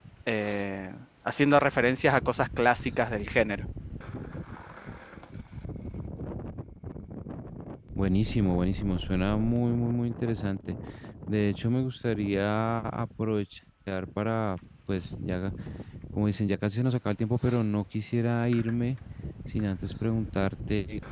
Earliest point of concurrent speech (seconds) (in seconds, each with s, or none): none